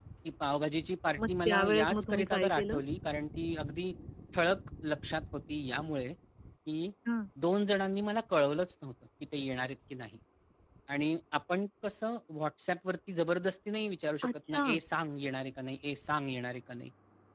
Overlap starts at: 1.2 s

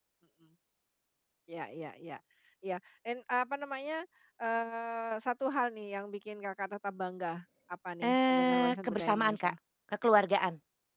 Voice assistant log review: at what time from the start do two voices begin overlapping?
8.0 s

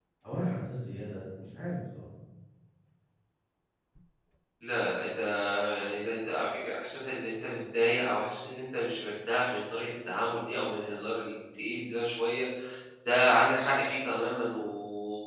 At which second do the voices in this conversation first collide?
none

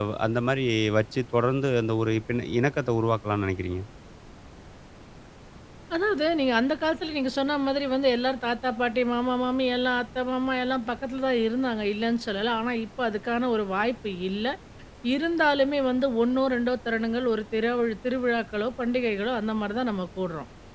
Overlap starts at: none

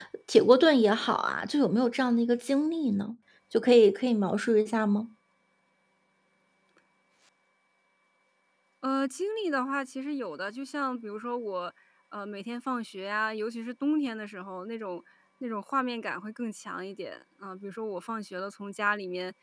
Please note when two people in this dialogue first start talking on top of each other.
none

